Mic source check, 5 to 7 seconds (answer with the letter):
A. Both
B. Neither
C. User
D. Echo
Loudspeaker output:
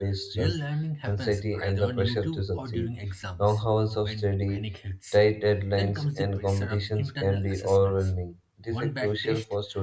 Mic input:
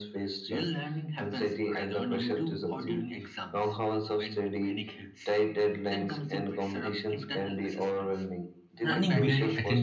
D